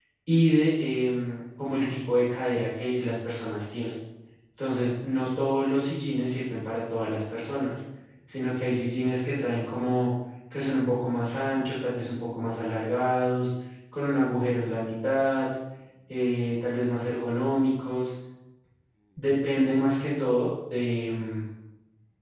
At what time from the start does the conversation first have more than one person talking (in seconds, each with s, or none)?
none